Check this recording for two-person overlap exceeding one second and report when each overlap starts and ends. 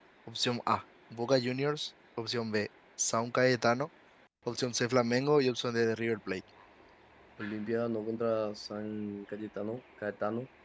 none

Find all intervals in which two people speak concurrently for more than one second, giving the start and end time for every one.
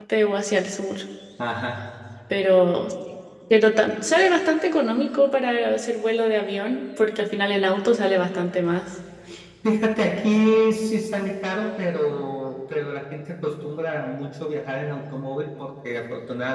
none

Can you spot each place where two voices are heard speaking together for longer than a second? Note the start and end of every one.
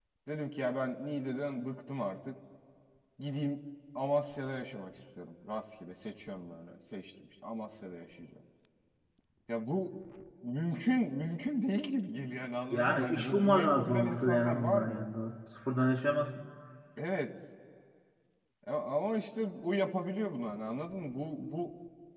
12.7-15.0

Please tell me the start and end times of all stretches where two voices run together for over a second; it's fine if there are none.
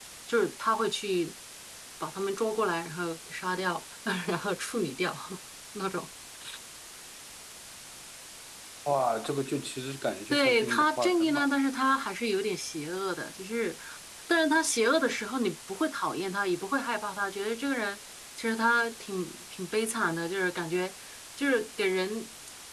10.3-11.5

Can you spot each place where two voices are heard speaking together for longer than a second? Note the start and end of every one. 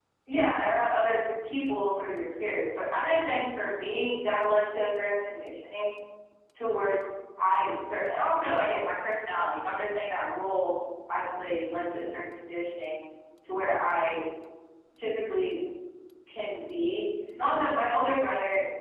none

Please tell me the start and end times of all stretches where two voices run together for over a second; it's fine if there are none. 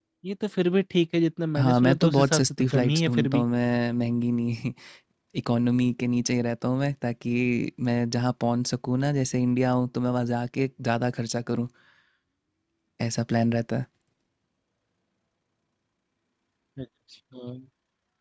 1.6-3.4

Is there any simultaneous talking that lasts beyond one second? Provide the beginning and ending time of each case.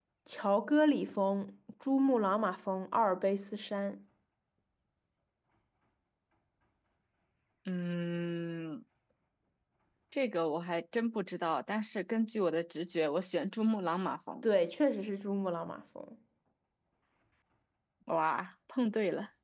none

